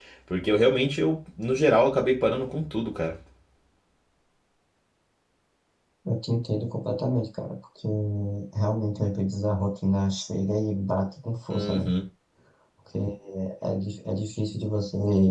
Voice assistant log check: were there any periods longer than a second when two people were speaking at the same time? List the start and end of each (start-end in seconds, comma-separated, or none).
none